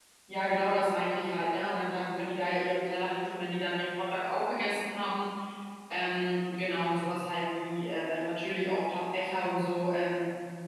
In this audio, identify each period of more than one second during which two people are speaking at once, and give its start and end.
none

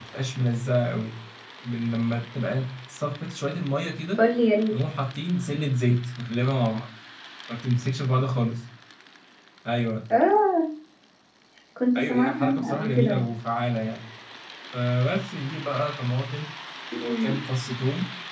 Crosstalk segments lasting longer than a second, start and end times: 12.0-13.2

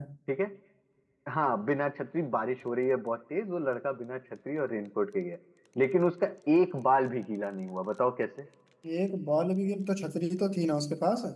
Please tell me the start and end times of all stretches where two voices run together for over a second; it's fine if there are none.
none

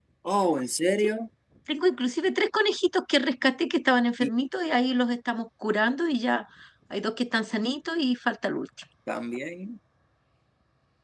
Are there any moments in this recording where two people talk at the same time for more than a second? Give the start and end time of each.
none

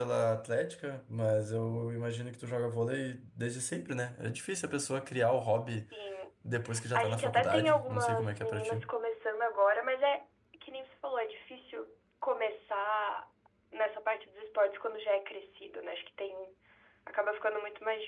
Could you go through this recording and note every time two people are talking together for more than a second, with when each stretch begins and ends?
6.9-8.8

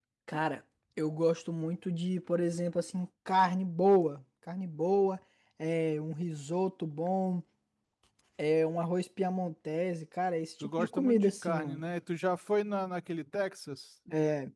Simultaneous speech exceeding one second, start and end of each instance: 10.6-11.8

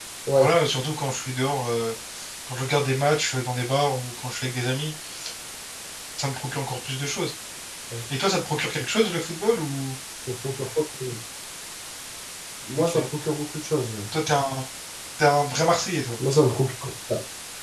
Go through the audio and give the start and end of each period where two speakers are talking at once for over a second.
none

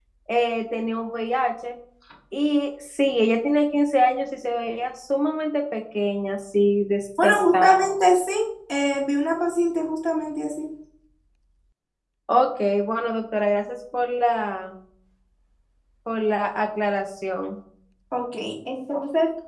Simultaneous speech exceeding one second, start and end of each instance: none

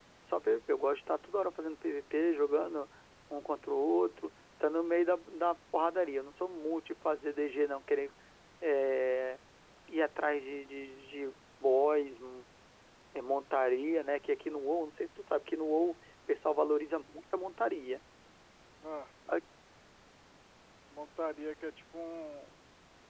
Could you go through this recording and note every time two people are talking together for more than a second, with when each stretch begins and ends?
none

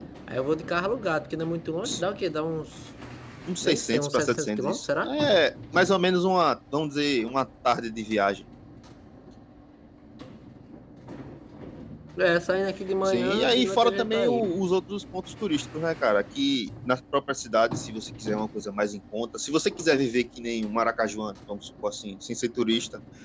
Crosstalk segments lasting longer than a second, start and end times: 3.6-5.1, 13.0-14.4

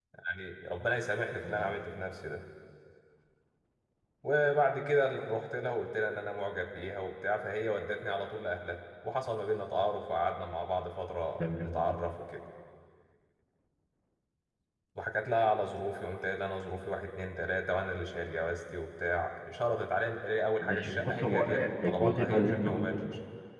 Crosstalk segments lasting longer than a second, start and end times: 20.6-23.0

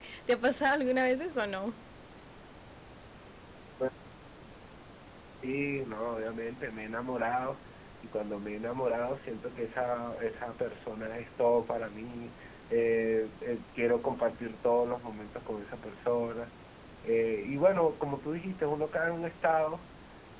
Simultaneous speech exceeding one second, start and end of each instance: none

